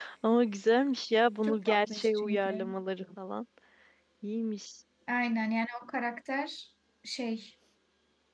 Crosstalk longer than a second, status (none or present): present